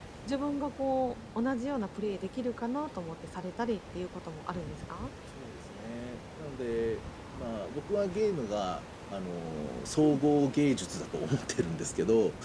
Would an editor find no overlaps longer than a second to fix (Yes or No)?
Yes